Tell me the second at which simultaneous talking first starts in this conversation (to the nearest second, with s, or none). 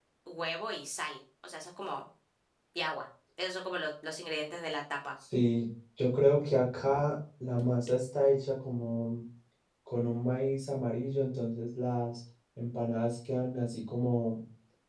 none